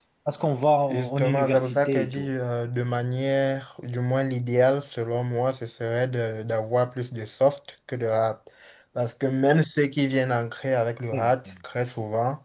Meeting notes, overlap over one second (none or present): present